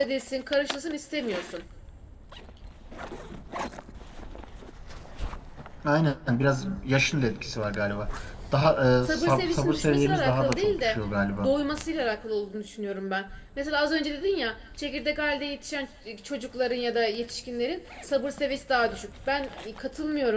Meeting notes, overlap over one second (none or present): present